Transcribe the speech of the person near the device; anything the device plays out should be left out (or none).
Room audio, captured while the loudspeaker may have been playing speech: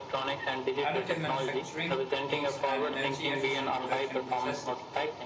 additive manufacturing techniques, and energy efficient production processes.